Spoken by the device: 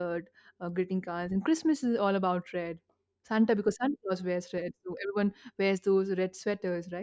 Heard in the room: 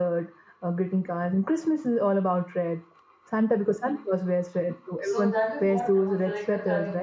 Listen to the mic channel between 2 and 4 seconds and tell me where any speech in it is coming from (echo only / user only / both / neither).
echo only